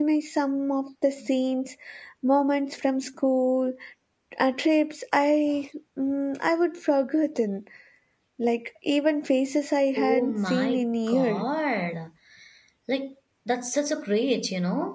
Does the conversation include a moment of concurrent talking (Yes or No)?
Yes